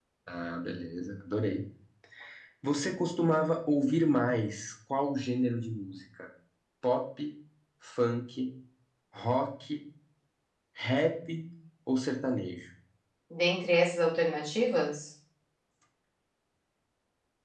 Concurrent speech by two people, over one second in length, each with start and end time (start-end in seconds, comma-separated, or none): none